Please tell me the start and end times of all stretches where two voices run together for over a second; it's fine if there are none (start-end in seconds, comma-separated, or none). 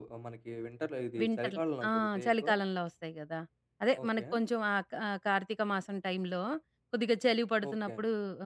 1.2-2.5